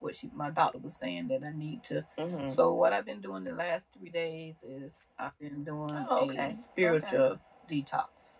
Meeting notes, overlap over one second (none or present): present